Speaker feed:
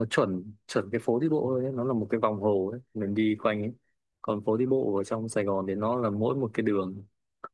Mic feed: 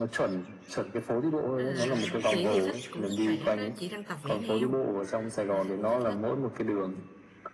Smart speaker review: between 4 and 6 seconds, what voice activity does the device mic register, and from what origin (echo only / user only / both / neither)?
both